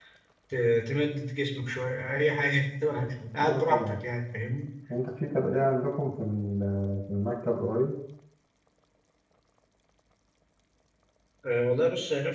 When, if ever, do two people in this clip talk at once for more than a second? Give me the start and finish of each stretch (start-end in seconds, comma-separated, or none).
none